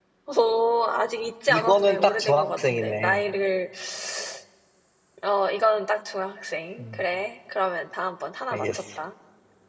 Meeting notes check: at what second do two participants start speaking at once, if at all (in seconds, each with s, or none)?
1.5 s